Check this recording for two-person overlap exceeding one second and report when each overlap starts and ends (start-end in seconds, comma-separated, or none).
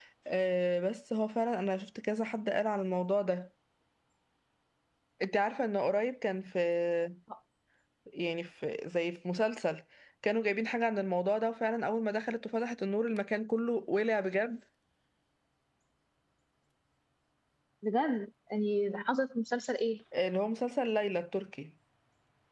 none